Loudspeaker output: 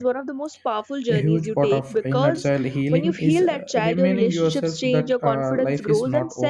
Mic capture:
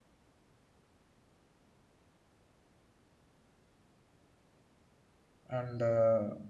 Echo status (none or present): none